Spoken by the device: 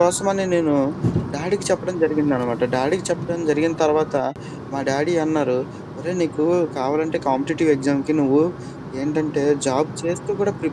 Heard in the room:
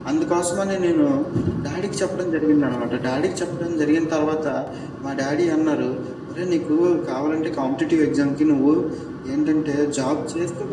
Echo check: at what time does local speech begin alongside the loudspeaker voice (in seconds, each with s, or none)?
none